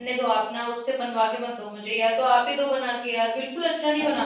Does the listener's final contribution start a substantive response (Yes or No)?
Yes